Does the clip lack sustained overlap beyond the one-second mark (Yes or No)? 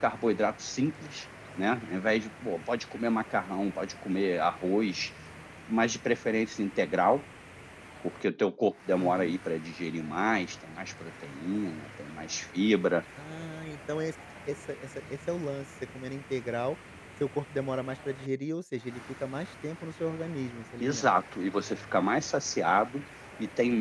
Yes